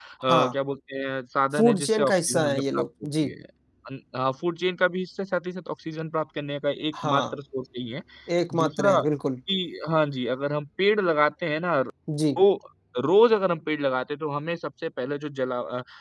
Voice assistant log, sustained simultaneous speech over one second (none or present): present